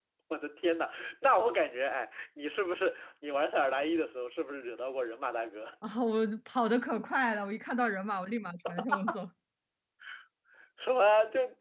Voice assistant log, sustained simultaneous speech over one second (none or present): none